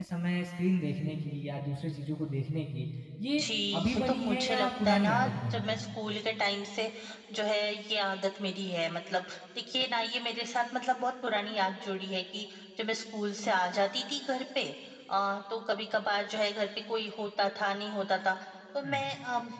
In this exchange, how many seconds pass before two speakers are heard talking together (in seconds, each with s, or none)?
3.9 s